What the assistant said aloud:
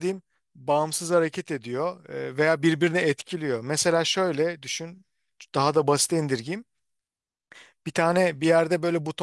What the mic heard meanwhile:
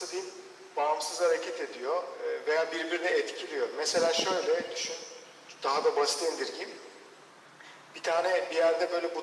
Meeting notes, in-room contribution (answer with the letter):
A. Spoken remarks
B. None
B